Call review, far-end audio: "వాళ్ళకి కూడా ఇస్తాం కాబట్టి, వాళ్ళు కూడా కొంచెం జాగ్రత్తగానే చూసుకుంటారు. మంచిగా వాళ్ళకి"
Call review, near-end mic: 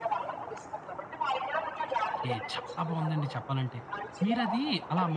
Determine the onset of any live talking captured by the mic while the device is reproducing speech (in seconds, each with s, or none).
2.2 s